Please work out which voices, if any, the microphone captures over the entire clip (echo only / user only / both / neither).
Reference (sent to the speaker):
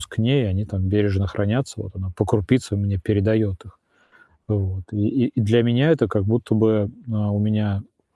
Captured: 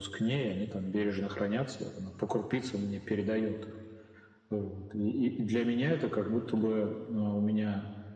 echo only